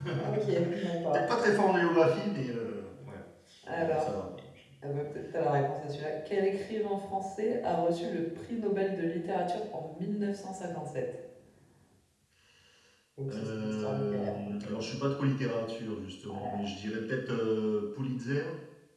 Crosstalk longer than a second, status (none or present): present